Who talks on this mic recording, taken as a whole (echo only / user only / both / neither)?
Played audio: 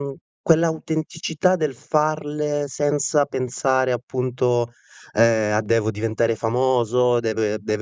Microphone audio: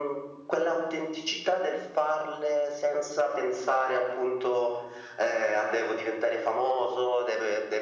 echo only